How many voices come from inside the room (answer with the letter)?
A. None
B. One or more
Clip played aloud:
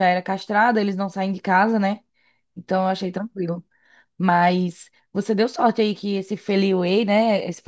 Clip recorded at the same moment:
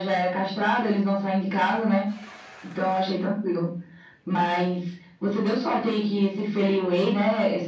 A